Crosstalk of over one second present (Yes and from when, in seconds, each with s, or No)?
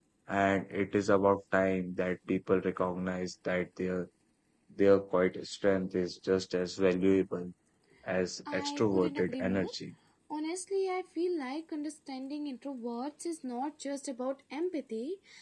Yes, from 8.5 s